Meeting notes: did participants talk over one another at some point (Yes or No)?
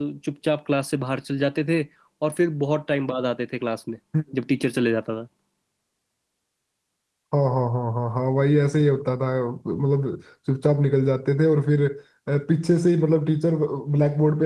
No